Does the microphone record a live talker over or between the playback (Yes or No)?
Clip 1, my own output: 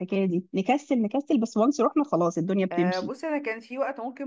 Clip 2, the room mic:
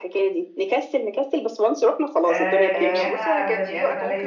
Yes